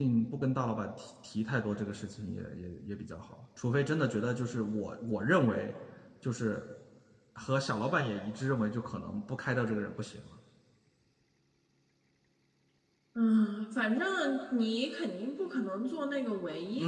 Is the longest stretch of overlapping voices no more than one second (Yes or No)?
Yes